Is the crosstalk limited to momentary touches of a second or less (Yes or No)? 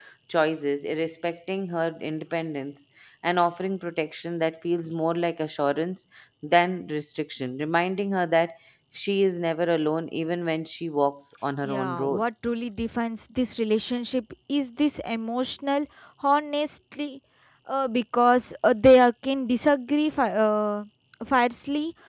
Yes